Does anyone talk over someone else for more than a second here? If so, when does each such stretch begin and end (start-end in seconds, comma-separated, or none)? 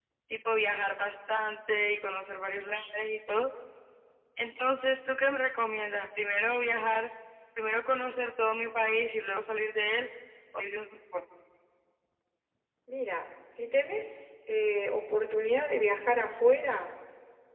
none